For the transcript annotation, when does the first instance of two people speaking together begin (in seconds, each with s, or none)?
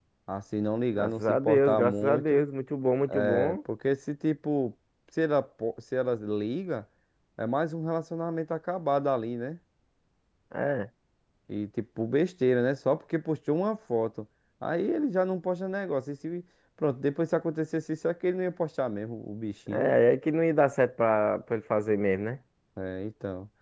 0.9 s